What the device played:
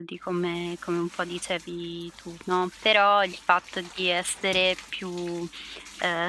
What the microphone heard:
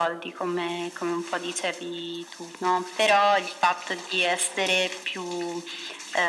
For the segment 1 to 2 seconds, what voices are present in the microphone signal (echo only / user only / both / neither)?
echo only